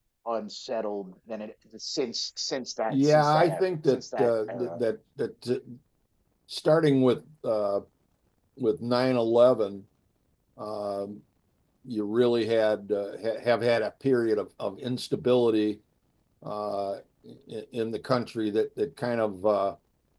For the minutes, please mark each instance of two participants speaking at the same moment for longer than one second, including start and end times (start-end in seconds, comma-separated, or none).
2.9-4.8